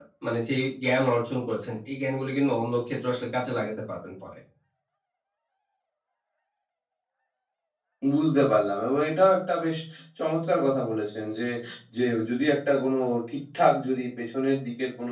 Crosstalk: none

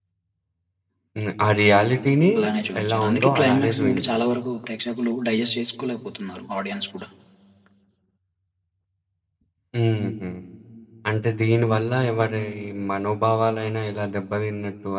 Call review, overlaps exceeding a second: present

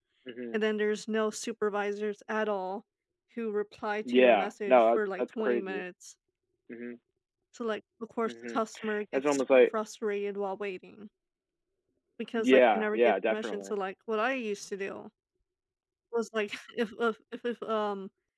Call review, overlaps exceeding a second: present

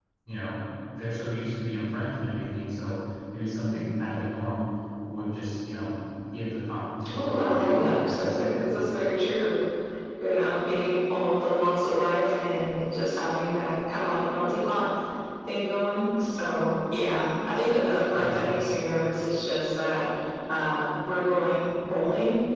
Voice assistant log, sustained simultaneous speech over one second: present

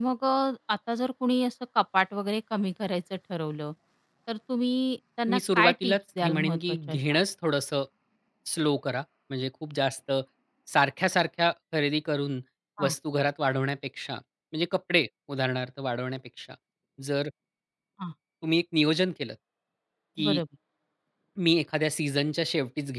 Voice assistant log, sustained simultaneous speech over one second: present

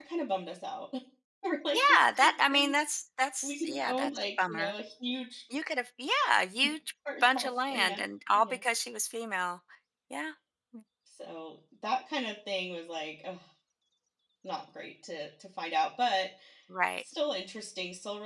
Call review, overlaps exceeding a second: present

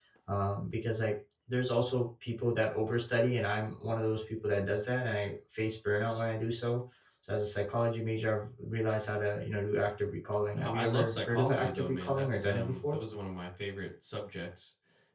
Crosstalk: present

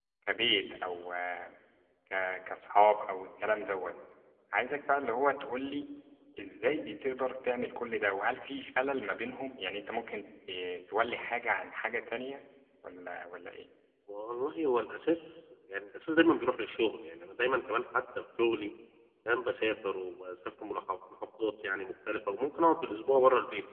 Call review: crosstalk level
none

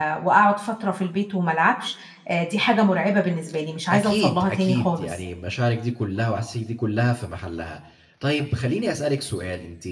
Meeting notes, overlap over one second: present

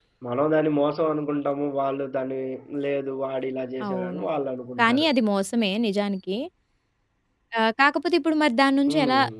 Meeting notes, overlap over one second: none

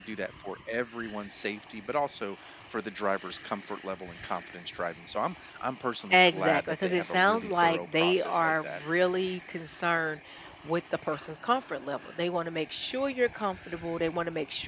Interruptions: present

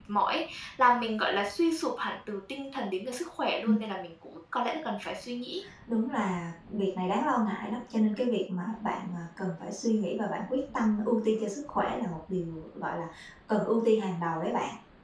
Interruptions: none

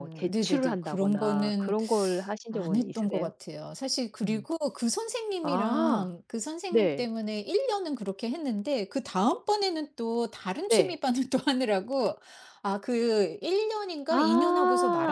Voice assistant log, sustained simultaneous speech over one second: present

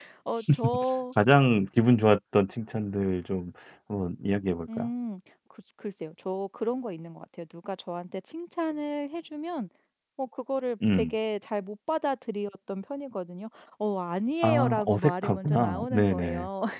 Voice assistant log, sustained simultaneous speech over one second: present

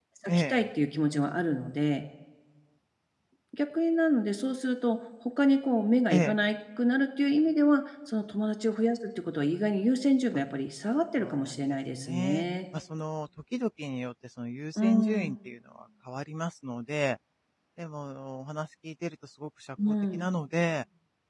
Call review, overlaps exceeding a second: present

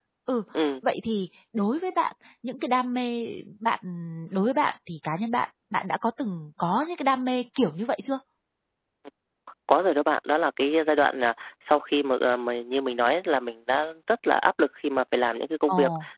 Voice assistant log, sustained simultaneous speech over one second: none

